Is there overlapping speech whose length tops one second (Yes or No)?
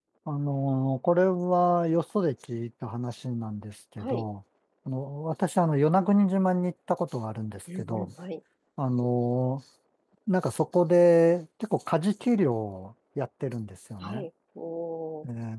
No